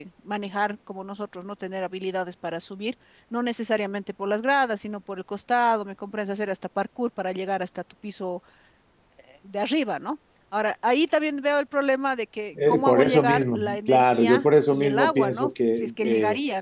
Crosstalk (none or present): present